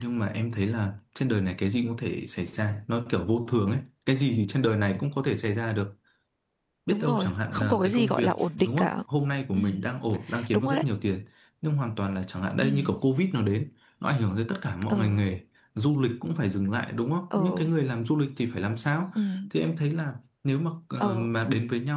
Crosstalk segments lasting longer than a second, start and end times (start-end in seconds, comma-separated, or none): 6.9-8.3